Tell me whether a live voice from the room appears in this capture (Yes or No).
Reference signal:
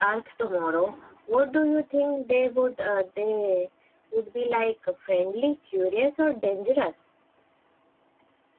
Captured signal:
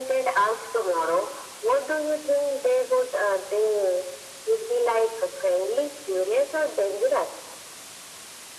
No